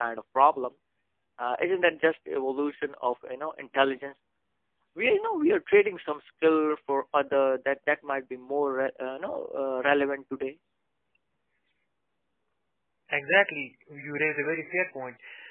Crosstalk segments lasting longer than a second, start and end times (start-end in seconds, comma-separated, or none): none